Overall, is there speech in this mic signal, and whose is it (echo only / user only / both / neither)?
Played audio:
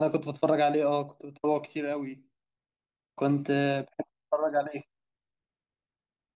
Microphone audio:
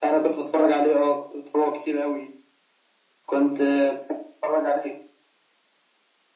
echo only